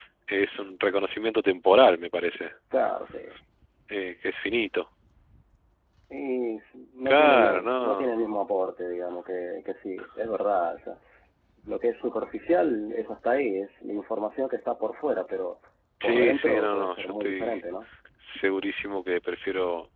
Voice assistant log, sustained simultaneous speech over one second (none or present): present